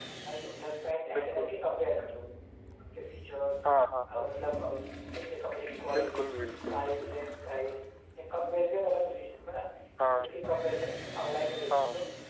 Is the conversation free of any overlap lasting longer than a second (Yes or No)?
Yes